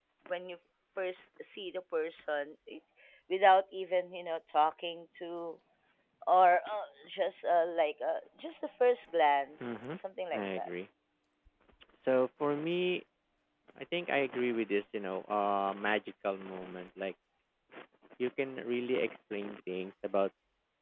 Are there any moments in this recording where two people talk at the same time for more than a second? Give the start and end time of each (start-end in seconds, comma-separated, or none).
none